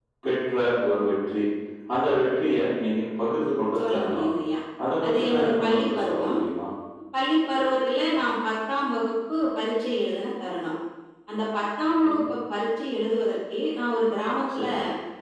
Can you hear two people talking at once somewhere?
Yes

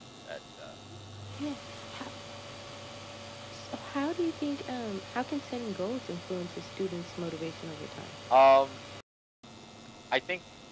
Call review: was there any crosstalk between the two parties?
No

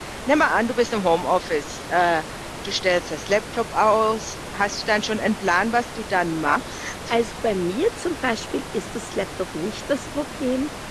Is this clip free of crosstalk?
Yes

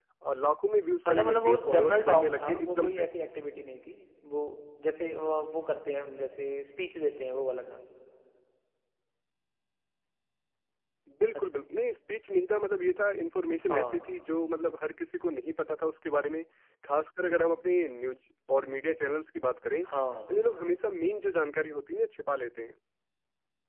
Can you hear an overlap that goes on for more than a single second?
Yes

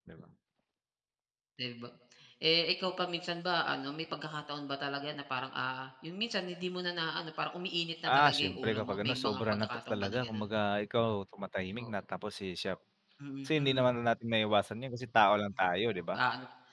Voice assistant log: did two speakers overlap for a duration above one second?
Yes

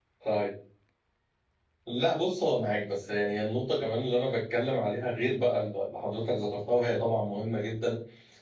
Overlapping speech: No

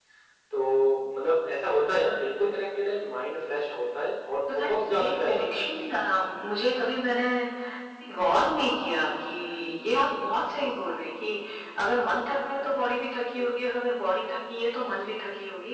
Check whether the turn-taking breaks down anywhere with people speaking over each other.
Yes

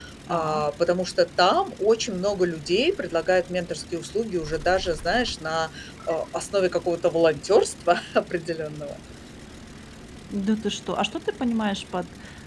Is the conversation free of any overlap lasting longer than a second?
Yes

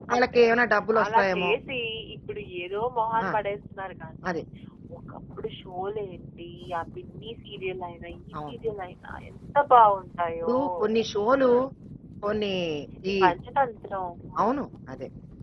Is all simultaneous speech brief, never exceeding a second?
Yes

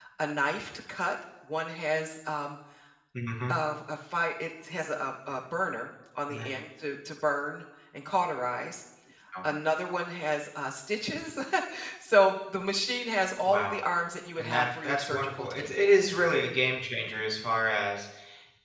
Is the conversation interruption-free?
No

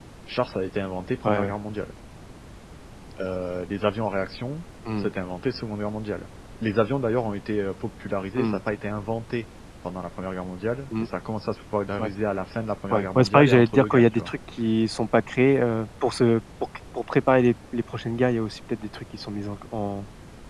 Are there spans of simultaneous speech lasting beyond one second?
Yes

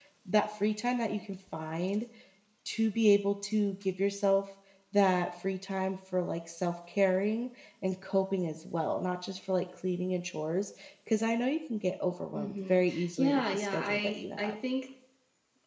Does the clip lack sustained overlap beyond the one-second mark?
No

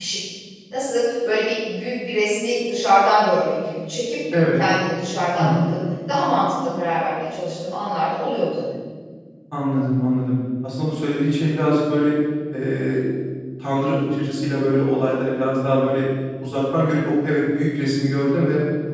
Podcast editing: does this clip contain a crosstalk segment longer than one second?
No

